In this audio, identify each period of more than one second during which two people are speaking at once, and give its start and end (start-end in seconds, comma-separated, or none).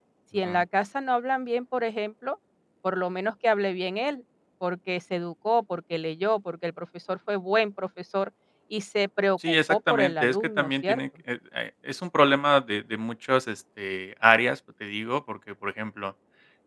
9.5-11.0